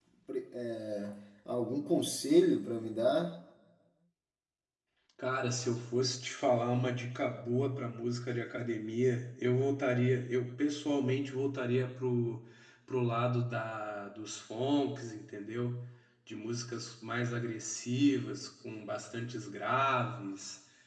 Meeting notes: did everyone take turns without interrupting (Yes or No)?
Yes